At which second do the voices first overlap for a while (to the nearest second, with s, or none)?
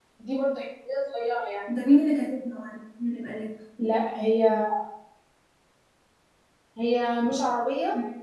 none